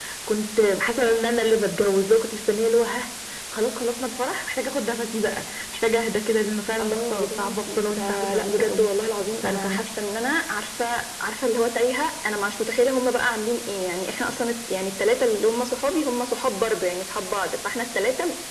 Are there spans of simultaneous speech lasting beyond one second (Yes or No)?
Yes